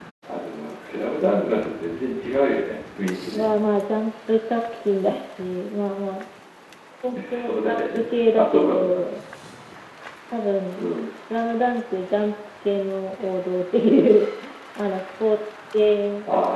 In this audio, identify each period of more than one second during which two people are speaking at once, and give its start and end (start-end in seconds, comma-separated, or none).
7.3-9.1